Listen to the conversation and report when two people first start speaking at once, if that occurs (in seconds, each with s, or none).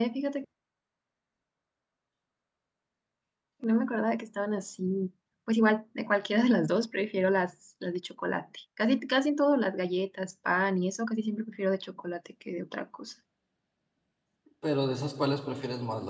none